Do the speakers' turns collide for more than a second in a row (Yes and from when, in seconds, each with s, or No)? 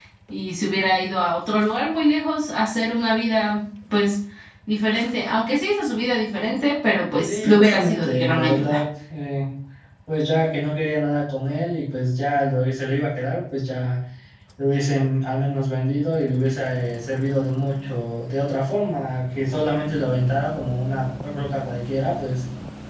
Yes, from 7.2 s